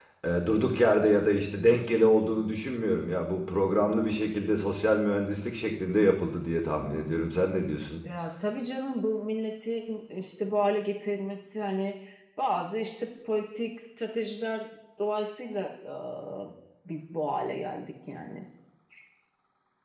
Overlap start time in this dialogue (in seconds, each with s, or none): none